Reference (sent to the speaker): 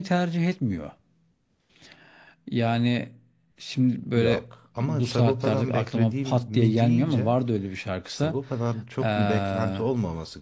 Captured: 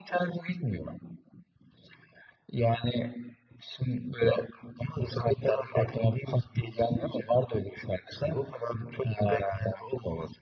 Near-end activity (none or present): none